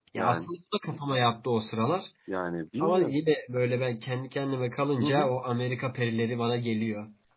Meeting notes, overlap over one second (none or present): none